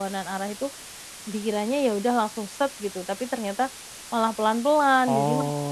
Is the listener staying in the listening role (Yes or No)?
No